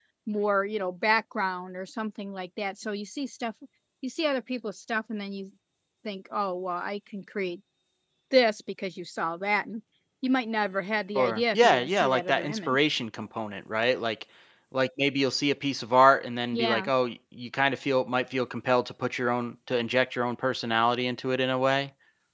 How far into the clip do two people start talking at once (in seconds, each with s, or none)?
11.2 s